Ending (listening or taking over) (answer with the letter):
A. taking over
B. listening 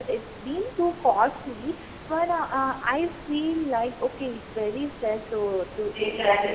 A